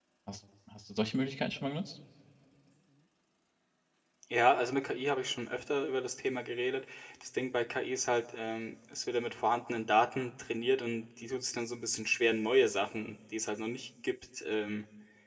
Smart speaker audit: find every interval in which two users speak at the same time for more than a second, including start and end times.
none

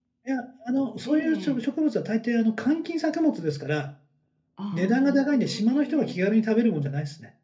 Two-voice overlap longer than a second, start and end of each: 4.7-6.1

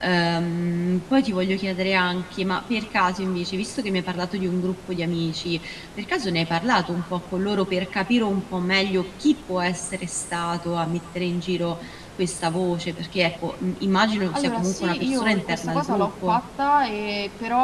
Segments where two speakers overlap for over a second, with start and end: 14.3-16.4

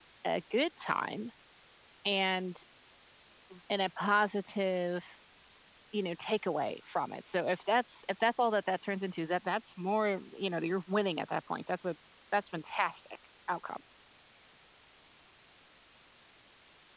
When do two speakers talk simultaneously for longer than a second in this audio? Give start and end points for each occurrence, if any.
none

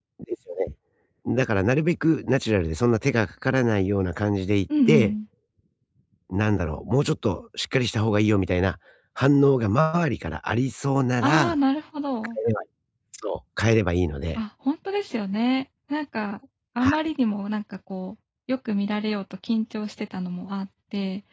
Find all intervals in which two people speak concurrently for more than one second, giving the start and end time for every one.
none

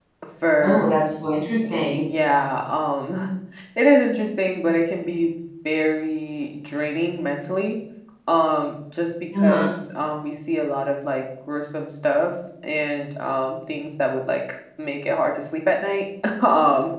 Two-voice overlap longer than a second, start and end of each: none

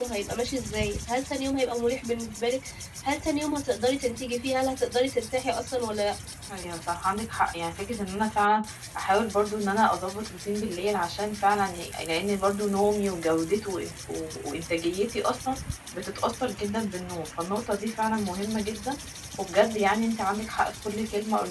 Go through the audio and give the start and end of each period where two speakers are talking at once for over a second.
none

